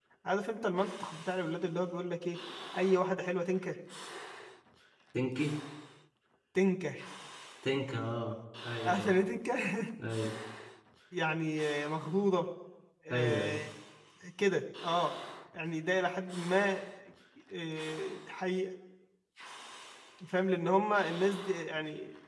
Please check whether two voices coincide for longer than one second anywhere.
No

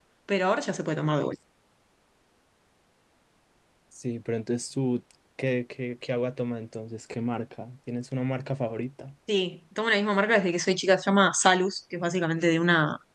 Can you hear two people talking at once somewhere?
No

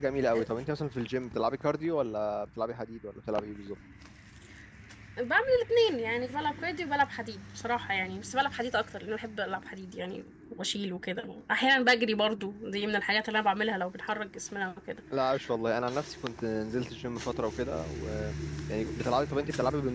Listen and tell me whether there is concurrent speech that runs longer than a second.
No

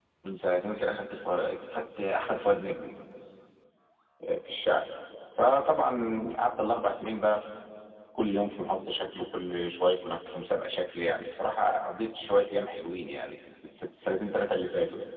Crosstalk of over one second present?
No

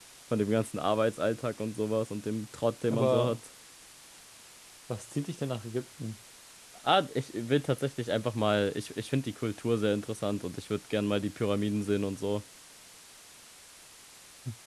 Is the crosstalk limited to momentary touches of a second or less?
Yes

